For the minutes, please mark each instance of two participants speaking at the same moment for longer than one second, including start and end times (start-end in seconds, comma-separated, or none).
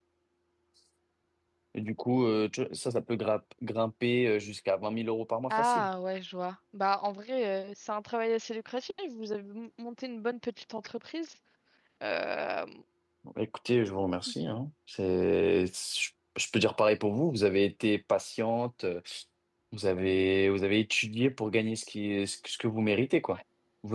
none